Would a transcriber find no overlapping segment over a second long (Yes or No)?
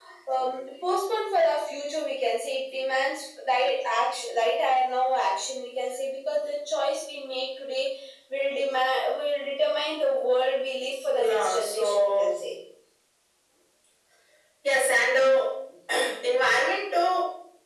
No